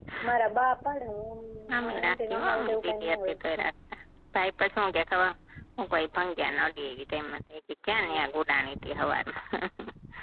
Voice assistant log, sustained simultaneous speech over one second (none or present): present